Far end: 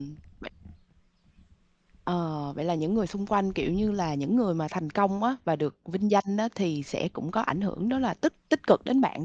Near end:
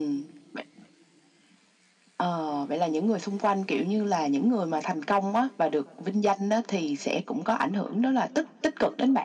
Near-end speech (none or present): none